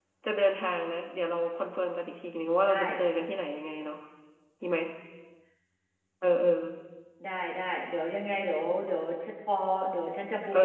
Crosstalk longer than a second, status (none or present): none